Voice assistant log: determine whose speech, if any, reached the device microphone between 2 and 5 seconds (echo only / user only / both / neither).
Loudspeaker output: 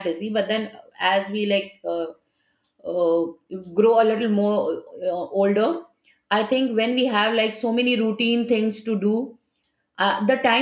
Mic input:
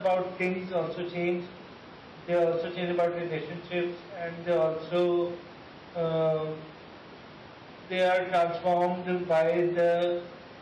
user only